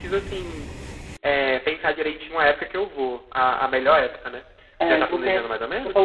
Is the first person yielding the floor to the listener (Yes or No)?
Yes